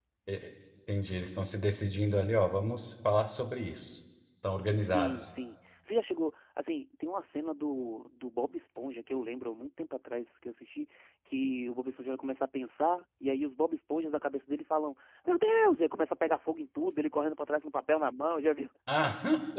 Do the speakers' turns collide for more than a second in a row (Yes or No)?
No